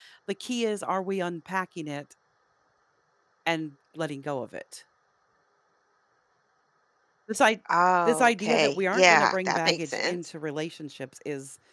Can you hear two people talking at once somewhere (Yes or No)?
Yes